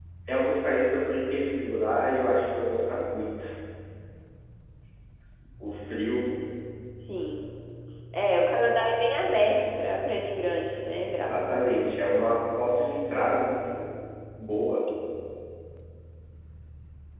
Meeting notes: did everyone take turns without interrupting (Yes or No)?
No